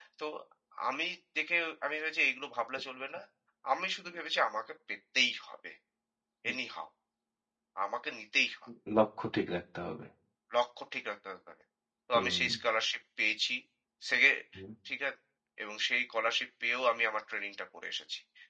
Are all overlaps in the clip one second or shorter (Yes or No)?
Yes